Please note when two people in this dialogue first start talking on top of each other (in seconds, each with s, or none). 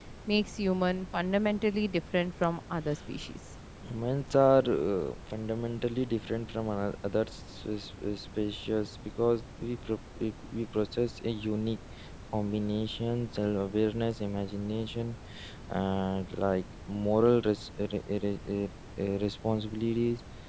none